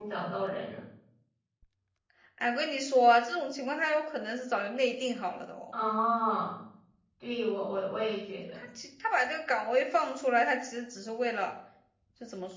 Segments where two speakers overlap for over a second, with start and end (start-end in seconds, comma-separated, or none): none